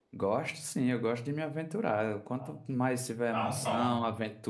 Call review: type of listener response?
listening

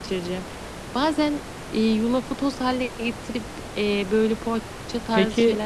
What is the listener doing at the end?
taking over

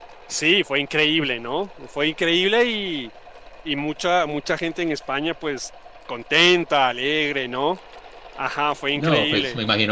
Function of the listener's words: taking over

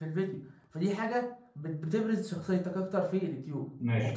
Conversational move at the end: taking over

